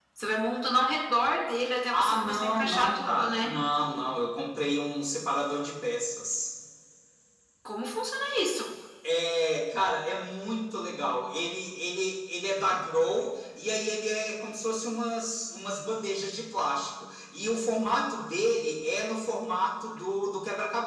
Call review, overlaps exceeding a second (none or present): present